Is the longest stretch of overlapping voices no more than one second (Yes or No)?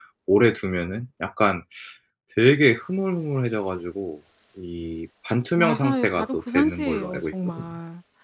No